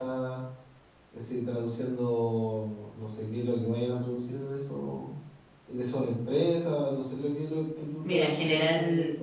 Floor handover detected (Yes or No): Yes